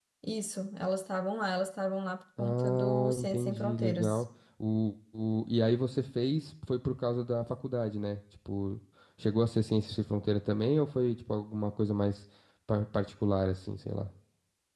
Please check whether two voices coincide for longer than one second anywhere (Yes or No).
Yes